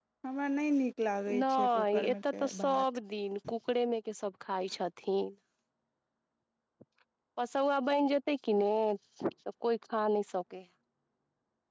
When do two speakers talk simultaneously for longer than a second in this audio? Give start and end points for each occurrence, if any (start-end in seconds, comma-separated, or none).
1.4-2.8